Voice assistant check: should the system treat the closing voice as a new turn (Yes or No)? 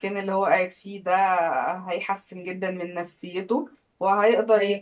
No